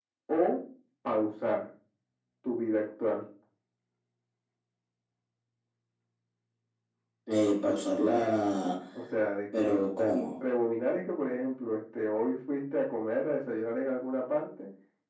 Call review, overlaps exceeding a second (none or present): none